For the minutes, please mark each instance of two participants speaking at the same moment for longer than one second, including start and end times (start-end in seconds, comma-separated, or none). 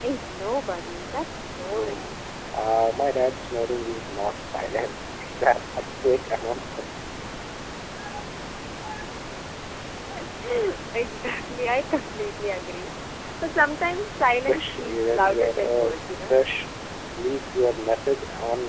14.3-16.4